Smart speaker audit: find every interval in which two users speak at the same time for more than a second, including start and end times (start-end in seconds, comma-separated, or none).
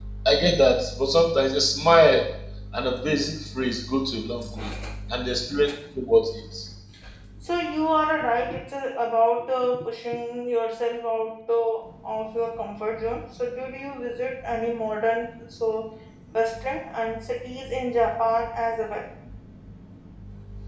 none